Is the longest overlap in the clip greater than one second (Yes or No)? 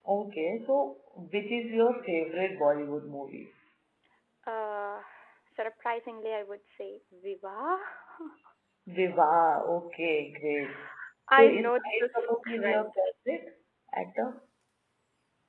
Yes